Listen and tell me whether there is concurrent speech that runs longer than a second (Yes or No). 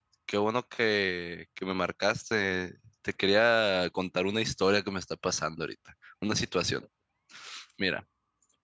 No